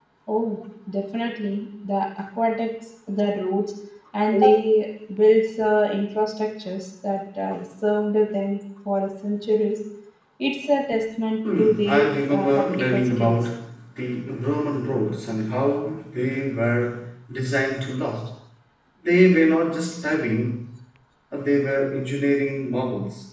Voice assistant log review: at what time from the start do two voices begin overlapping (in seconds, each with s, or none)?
11.4 s